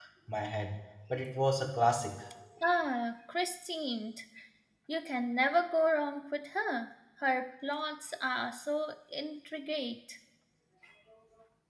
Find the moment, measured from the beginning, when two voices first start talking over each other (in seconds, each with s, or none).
none